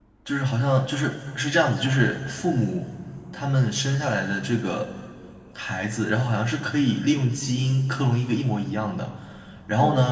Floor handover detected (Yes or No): No